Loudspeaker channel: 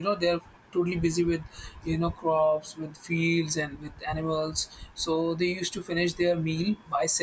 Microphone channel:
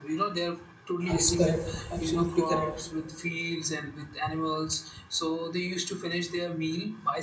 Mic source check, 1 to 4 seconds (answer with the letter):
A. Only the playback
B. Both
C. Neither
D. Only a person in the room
B